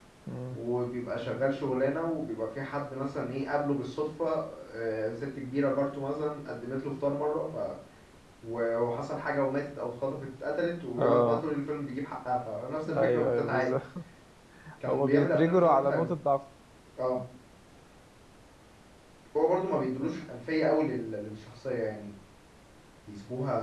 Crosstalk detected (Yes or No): Yes